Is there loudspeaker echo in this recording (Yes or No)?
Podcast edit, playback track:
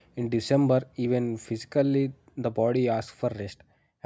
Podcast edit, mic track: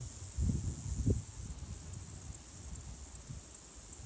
No